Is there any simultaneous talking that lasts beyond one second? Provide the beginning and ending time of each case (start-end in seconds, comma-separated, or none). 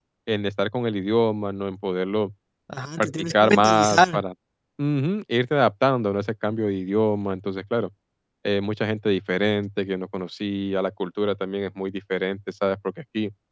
3.0-4.2